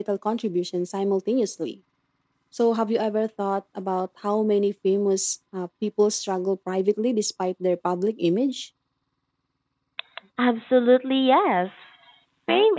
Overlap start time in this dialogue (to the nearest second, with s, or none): none